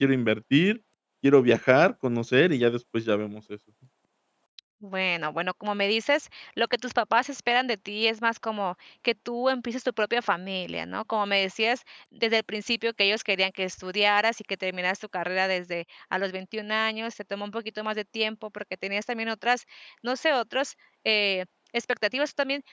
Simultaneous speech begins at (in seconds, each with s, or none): none